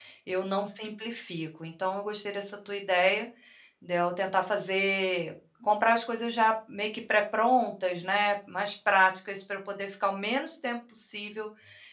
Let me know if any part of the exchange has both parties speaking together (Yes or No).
No